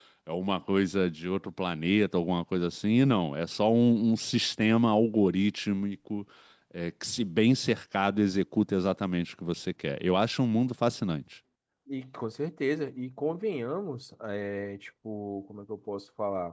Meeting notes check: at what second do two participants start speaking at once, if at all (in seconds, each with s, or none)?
none